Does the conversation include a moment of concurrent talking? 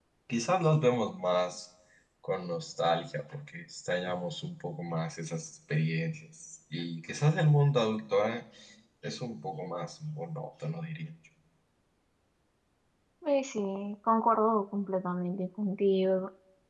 No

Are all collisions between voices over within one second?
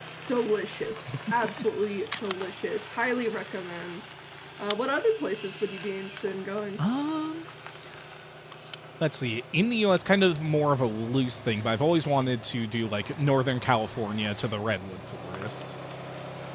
Yes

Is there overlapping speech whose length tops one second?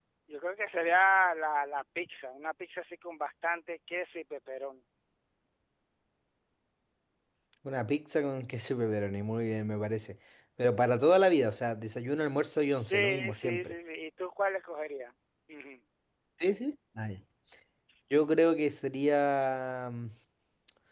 Yes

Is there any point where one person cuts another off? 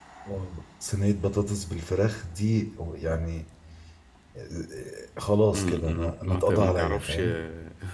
Yes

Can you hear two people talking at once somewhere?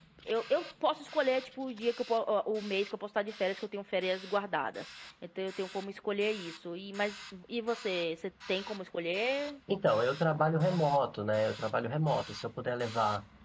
No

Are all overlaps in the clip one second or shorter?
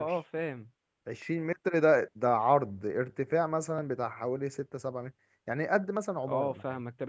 Yes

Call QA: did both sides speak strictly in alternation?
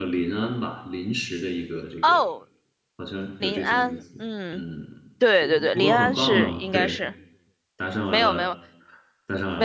No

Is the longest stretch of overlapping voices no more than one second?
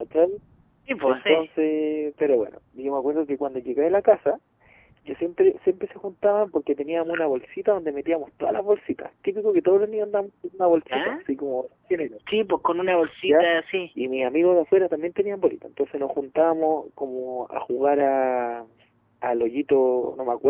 Yes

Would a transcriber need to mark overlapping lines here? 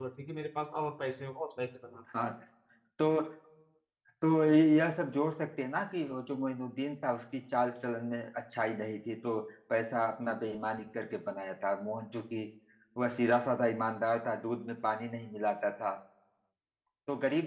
No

